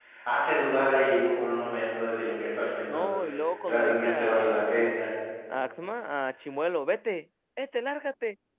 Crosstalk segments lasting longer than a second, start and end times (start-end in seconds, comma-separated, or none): 3.6-4.9